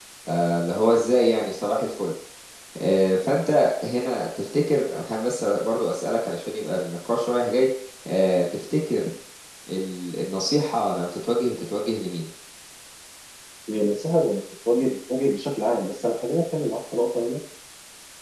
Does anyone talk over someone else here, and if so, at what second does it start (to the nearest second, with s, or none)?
none